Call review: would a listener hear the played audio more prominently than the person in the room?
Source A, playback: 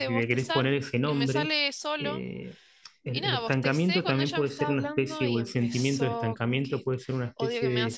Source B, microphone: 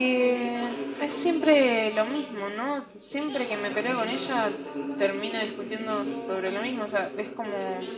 No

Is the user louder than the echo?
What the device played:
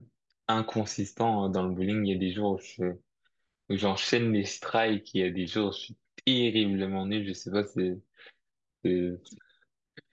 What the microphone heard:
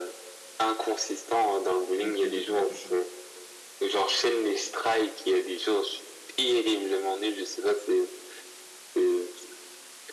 No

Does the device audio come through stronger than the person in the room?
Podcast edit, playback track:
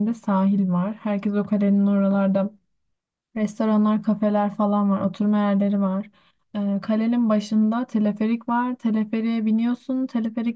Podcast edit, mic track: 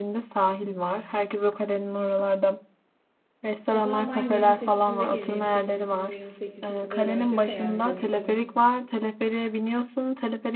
Yes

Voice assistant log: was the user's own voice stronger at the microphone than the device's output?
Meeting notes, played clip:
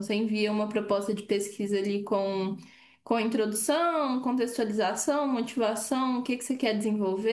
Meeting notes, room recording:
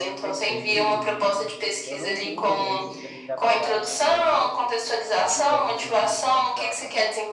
No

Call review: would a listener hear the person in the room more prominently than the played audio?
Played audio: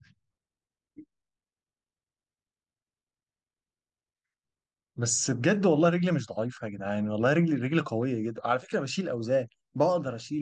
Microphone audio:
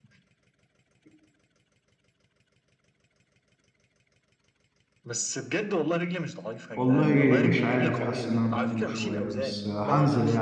Yes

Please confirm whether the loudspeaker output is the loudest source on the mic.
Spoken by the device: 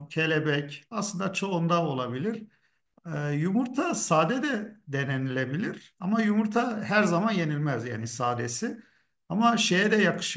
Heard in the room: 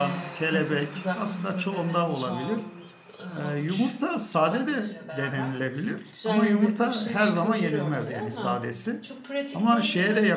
Yes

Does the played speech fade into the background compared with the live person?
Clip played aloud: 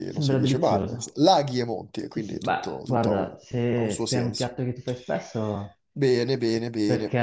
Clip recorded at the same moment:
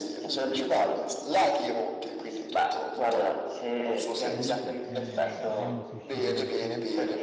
No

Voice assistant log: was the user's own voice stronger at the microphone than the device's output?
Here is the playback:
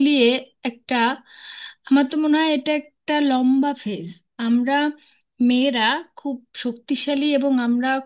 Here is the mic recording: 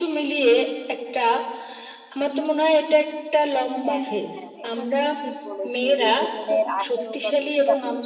No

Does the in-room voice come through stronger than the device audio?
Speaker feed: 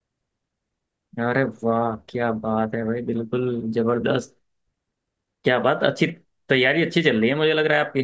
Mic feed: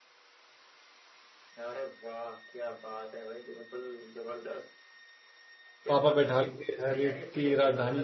Yes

